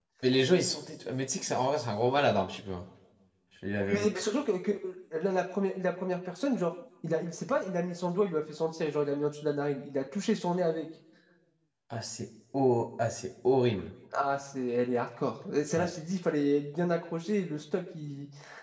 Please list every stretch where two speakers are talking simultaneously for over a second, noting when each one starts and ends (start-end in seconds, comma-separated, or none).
none